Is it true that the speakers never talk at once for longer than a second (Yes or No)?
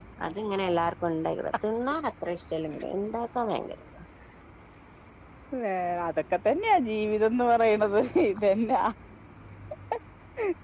Yes